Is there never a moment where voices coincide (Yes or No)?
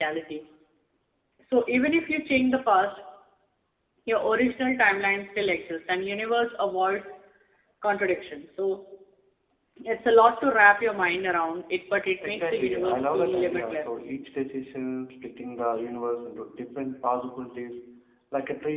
No